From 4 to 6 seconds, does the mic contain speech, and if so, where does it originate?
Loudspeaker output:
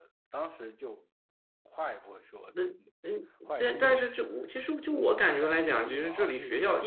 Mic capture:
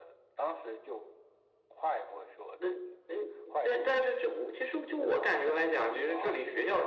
echo only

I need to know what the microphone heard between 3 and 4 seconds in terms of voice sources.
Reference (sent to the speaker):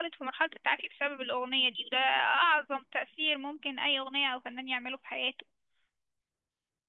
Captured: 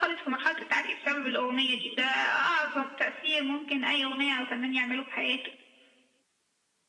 echo only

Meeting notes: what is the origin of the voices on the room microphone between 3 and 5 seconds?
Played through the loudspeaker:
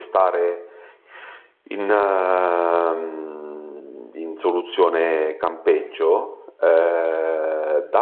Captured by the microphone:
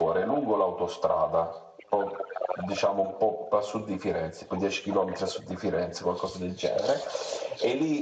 both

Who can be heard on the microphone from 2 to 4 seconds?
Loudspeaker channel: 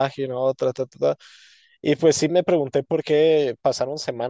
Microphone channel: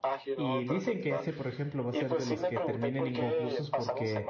both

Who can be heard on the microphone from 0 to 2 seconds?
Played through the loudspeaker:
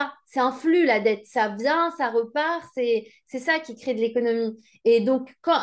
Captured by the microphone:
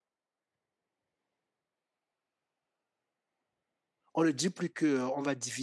neither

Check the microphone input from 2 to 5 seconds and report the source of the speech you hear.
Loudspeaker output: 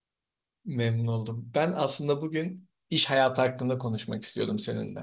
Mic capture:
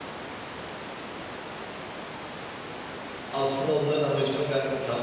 user only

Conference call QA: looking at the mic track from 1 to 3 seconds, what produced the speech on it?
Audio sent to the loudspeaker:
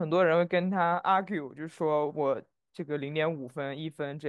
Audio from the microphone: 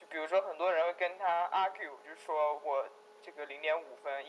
echo only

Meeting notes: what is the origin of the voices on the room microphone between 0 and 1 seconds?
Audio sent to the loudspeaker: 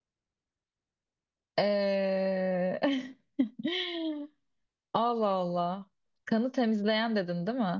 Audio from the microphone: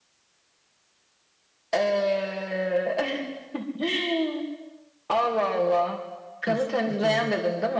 neither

